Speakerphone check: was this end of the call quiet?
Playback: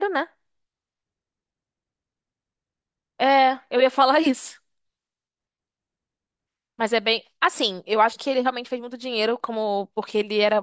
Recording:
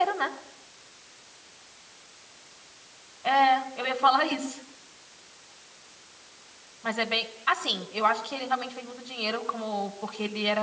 Yes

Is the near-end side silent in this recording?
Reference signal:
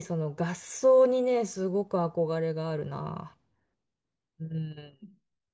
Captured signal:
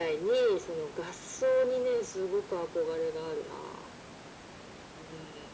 Yes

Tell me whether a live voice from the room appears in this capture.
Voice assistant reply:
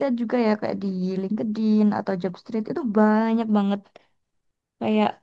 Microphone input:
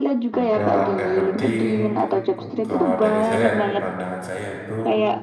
Yes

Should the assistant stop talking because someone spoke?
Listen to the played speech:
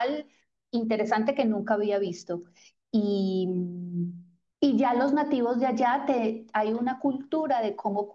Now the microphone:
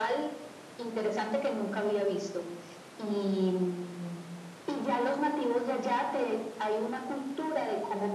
No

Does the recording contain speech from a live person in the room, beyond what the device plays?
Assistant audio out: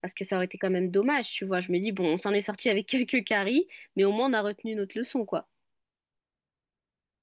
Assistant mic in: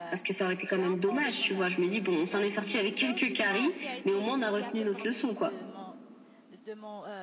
Yes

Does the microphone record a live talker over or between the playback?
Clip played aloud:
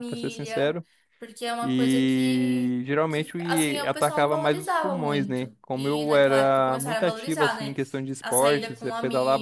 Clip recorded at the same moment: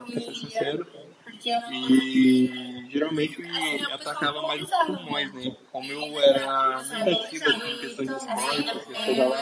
Yes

